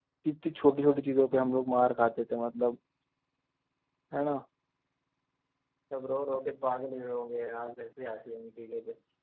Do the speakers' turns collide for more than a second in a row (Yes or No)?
No